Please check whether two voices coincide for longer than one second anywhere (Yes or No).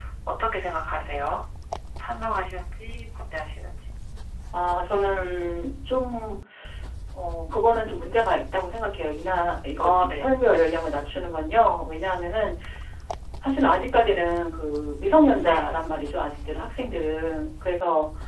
No